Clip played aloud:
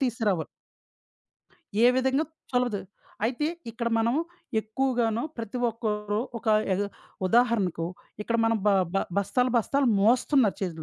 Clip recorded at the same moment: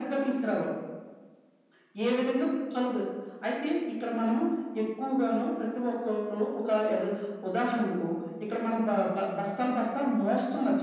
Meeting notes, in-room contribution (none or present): none